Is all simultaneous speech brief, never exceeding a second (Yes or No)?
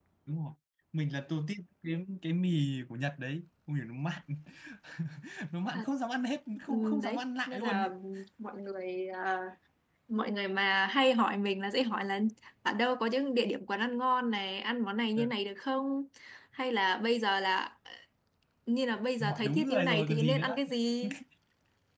No